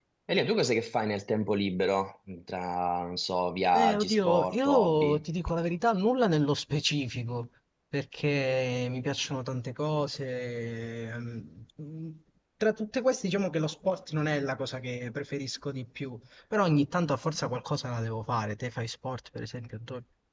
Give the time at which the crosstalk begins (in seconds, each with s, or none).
3.7 s